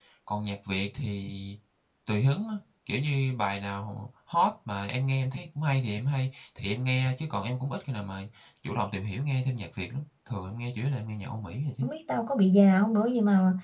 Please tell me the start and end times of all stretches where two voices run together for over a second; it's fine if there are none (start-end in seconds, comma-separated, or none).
none